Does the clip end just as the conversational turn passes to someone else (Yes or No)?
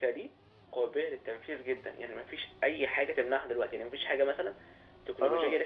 No